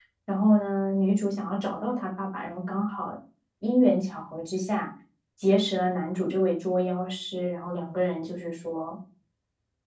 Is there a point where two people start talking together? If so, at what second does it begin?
none

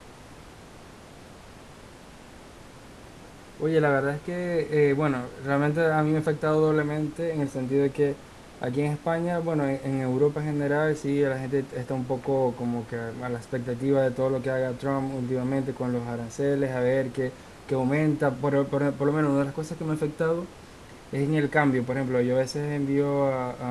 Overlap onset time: none

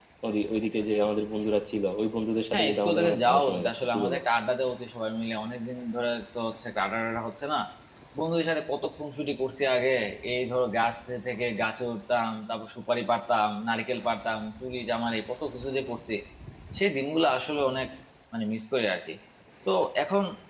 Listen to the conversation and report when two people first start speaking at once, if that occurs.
2.5 s

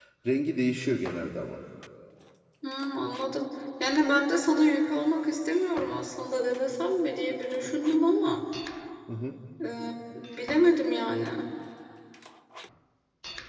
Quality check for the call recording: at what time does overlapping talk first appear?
none

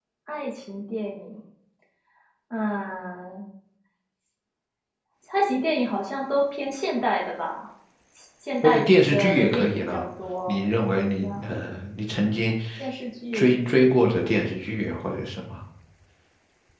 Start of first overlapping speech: 8.6 s

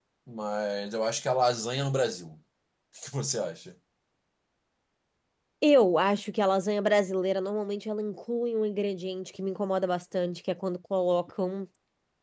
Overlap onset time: none

